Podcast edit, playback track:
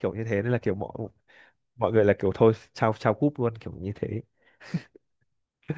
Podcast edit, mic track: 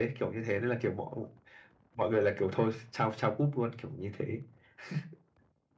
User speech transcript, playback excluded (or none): none